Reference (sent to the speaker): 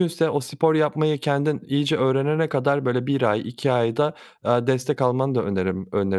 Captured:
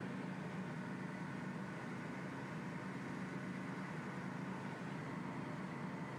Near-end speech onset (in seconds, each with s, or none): none